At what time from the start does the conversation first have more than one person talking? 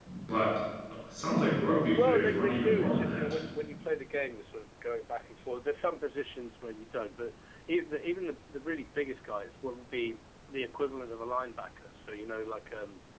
2 s

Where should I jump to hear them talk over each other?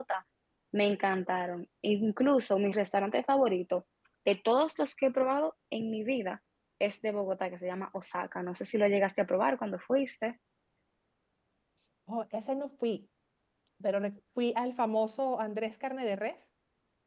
none

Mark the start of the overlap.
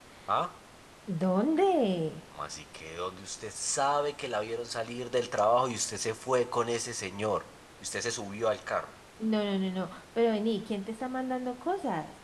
none

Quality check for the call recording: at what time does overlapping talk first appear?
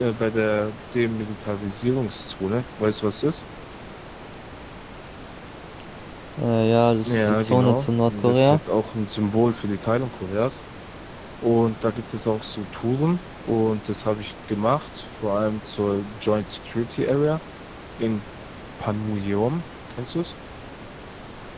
7 s

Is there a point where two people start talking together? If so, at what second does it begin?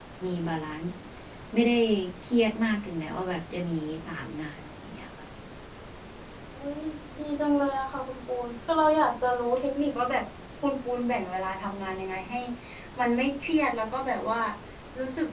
none

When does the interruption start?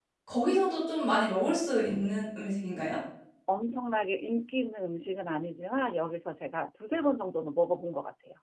none

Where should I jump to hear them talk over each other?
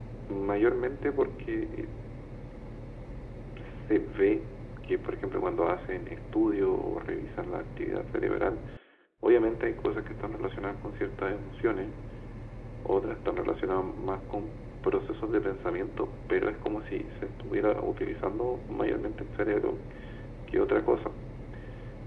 none

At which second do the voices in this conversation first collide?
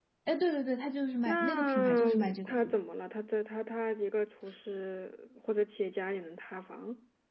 1 s

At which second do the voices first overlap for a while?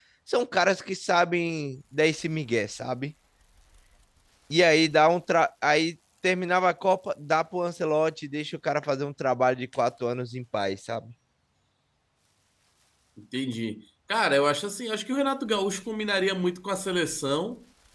none

